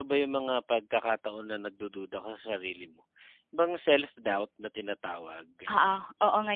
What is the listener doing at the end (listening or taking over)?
taking over